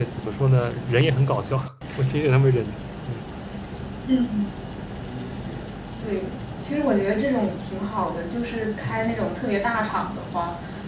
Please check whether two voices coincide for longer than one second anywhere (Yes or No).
No